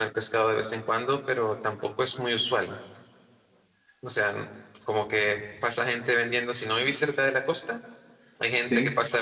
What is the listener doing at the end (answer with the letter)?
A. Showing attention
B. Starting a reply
A